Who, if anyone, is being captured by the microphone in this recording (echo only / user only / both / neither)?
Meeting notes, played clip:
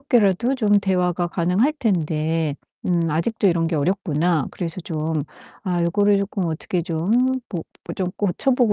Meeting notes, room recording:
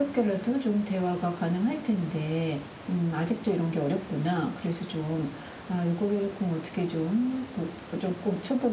echo only